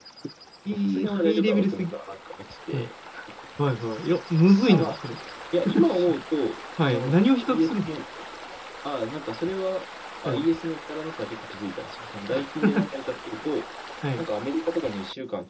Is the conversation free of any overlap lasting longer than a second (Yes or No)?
No